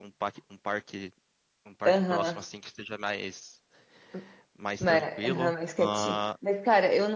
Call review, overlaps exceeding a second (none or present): present